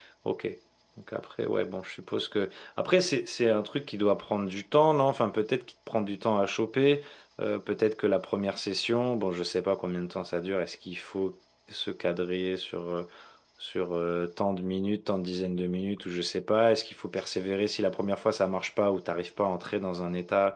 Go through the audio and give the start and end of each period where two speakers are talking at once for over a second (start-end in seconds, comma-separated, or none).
none